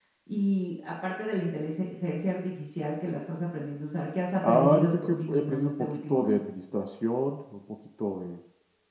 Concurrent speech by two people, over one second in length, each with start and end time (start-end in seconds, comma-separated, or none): 4.4-6.4